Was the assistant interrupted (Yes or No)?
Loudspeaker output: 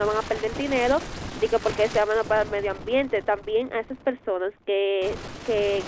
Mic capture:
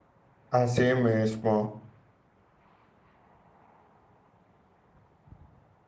Yes